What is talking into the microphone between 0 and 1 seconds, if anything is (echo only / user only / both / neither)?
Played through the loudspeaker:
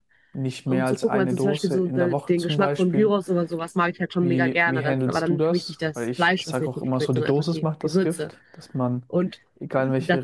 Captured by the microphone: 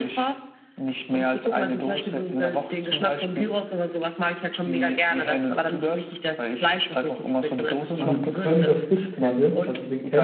echo only